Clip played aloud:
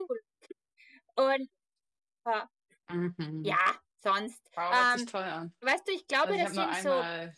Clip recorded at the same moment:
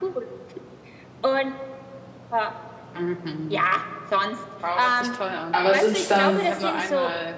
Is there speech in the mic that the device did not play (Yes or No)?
Yes